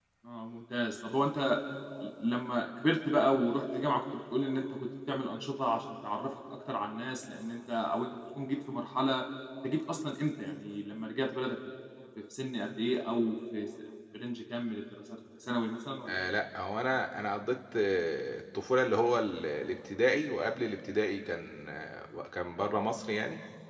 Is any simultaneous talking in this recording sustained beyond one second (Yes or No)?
No